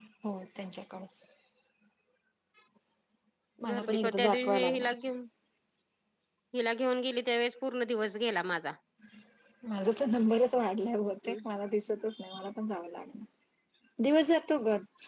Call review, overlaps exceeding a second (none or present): present